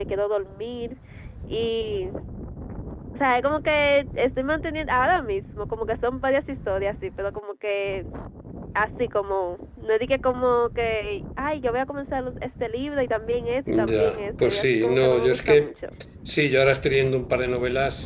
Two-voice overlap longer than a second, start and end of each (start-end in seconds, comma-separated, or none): 13.7-15.7